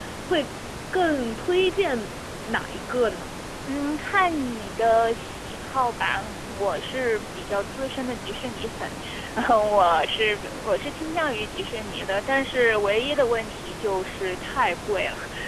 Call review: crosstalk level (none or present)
none